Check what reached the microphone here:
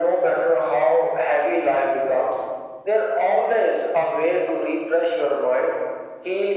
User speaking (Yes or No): No